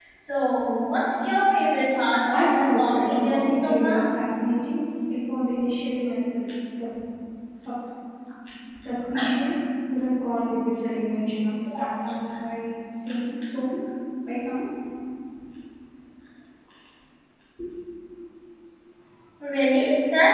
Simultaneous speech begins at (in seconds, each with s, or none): 2.3 s